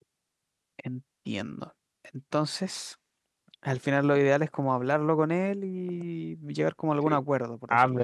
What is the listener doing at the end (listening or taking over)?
taking over